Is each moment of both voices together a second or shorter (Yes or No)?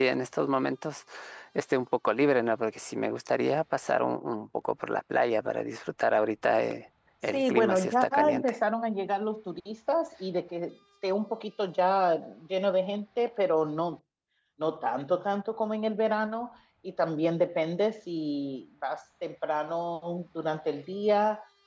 No